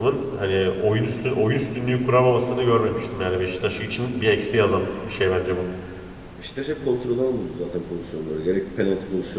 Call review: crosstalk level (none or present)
none